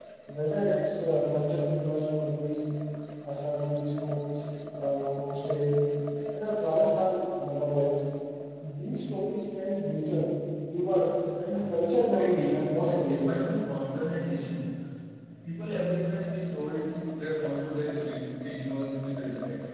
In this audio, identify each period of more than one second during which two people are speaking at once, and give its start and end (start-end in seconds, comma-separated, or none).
12.2-13.4